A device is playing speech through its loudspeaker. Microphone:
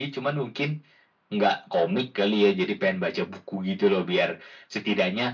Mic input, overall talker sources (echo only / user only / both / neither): echo only